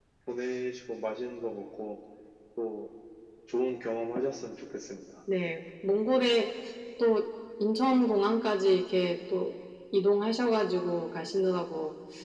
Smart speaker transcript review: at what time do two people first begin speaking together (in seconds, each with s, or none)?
none